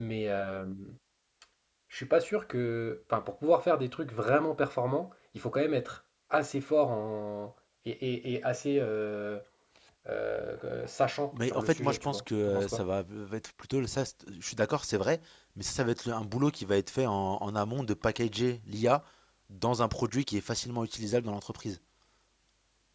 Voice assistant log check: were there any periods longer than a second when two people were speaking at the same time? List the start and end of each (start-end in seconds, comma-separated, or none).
11.5-12.8